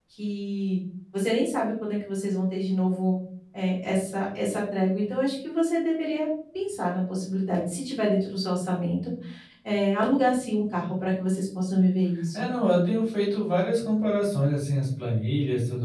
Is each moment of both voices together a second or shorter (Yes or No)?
Yes